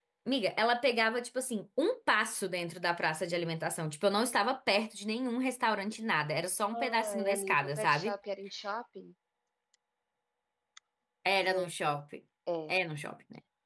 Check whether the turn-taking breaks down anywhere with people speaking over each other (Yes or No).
Yes